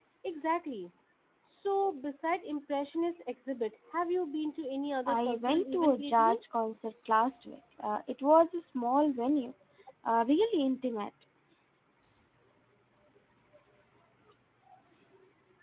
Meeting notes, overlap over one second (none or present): present